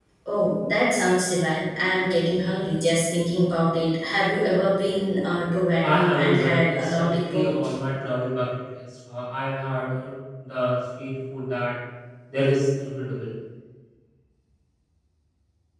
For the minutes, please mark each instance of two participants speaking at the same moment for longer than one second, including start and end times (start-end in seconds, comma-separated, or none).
5.8-7.5